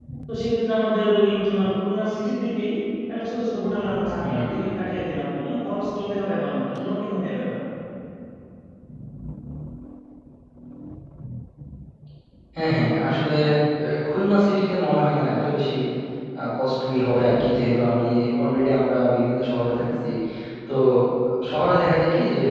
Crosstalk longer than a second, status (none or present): none